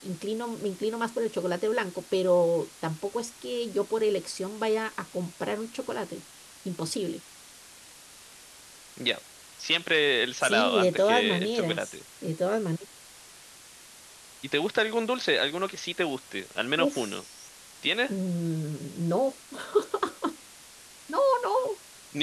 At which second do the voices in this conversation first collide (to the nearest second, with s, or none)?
10 s